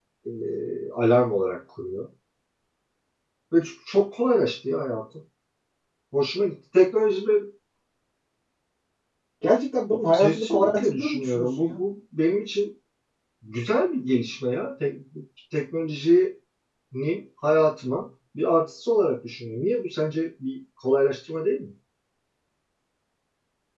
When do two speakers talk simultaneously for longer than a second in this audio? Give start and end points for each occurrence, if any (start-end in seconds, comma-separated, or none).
10.2-11.8